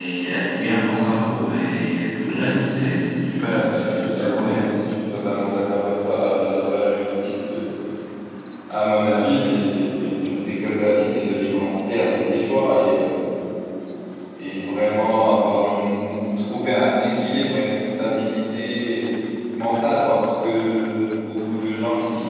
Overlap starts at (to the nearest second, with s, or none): 3 s